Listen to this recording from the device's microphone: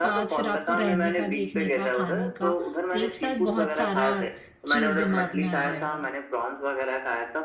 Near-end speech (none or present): present